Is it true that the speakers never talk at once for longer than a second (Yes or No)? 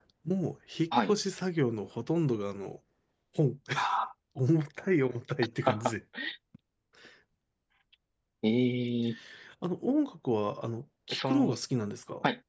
Yes